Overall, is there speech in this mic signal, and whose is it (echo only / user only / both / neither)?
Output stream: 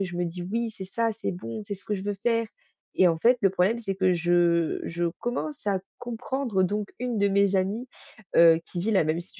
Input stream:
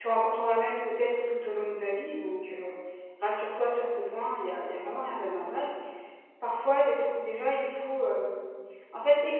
user only